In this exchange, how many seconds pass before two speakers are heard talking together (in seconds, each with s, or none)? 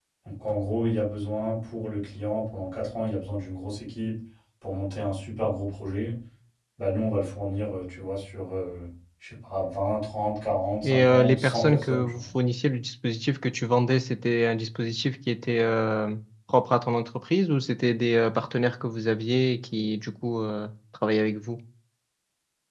10.8 s